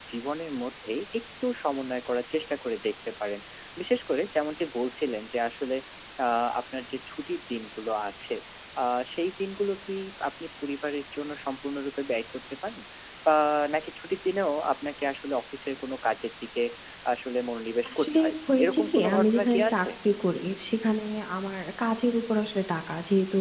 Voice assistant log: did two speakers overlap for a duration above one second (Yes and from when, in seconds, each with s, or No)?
Yes, from 17.9 s